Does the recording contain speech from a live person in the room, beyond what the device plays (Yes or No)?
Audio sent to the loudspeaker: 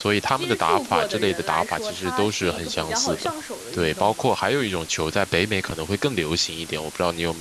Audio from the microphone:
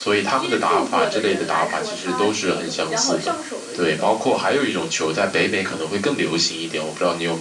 No